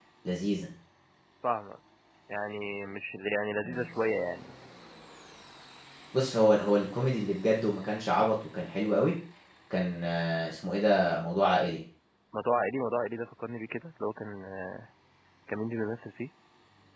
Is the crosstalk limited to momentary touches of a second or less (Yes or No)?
Yes